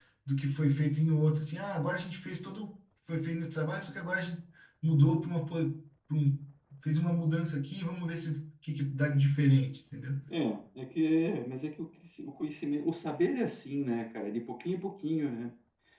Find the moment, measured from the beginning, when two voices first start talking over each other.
none

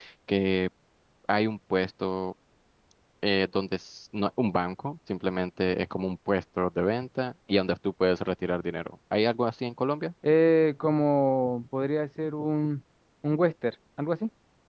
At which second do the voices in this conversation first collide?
none

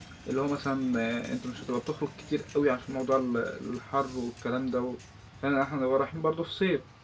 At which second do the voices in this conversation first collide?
none

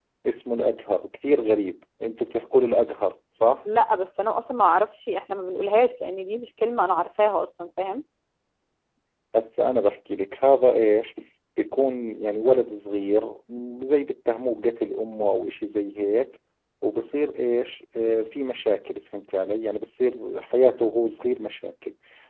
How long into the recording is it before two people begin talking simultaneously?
none

